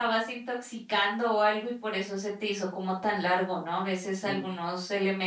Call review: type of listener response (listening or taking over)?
listening